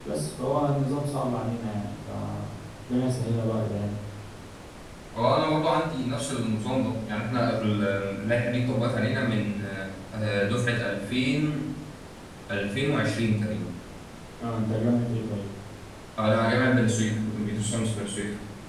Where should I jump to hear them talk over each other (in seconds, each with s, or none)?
none